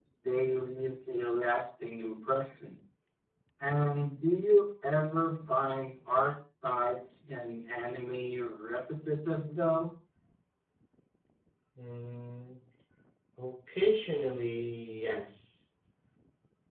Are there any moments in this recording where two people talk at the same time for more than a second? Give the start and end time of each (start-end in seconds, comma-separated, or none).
none